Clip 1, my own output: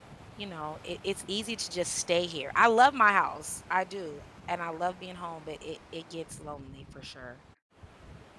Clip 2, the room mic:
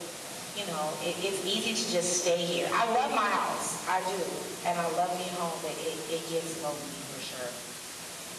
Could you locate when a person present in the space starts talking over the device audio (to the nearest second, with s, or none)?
none